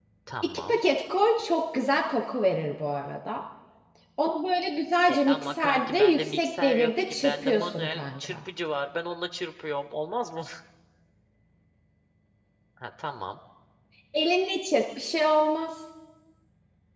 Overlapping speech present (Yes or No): Yes